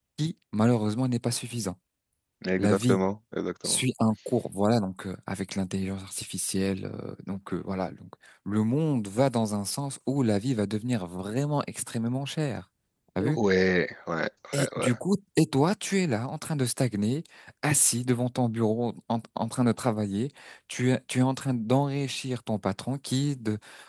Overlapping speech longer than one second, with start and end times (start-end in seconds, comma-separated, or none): none